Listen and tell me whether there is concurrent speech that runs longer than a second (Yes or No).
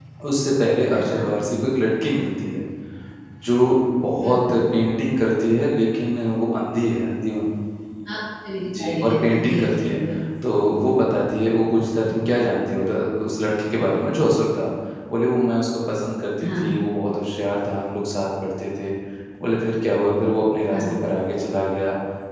Yes